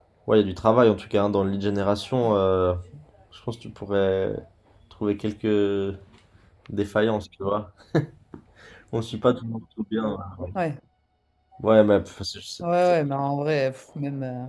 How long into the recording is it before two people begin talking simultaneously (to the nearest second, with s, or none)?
none